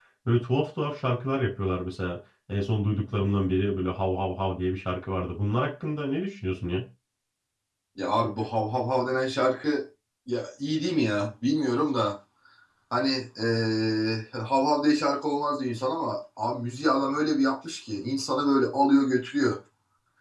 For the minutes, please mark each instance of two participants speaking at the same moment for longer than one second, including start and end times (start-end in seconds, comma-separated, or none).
none